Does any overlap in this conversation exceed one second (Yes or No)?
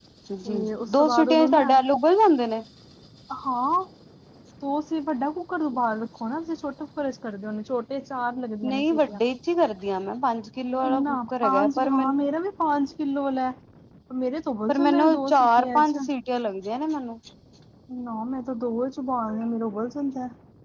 Yes